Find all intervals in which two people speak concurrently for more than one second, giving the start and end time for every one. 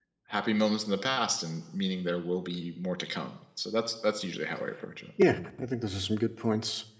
none

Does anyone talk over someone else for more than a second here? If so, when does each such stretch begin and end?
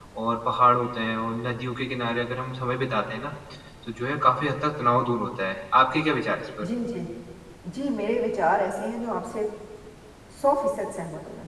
none

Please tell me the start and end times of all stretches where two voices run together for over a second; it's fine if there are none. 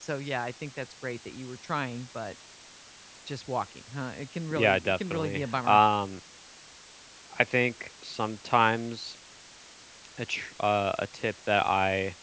4.5-5.8

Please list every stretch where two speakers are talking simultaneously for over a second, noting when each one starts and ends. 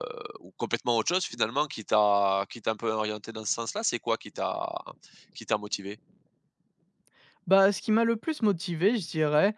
none

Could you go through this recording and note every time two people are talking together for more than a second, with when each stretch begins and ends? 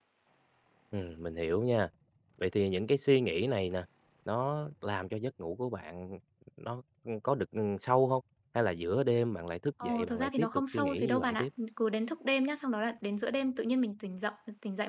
9.8-11.5

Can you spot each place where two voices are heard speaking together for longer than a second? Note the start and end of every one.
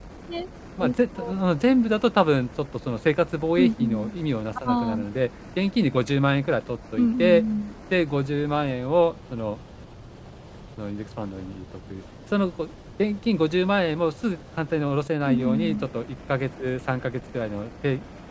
none

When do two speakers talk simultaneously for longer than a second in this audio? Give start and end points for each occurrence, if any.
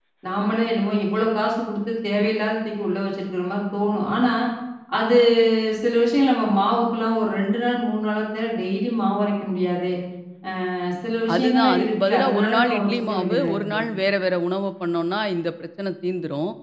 11.3-13.8

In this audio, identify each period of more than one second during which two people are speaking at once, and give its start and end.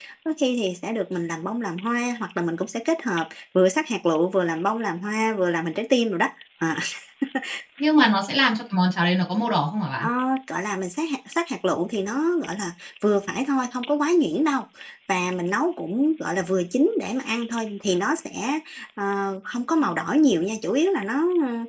none

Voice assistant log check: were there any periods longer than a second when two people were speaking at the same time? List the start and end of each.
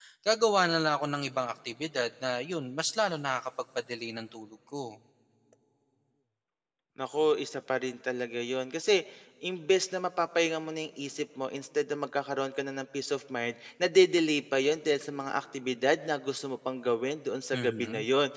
none

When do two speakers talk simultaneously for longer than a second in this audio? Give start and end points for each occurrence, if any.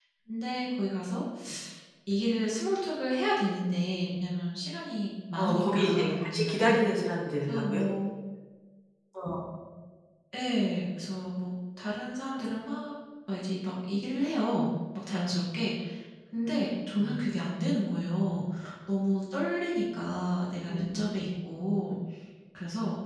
5.4-6.8

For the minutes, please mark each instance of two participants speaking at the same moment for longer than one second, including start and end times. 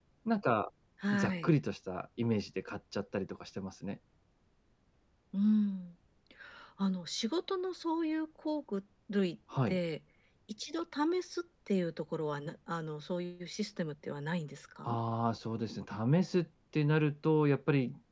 none

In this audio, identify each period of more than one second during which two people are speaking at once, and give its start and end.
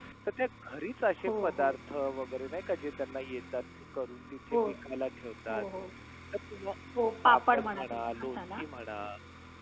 7.2-8.6

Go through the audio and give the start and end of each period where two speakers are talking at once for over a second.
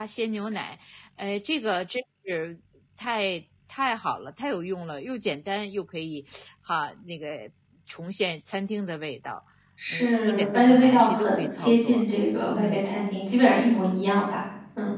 9.9-12.0

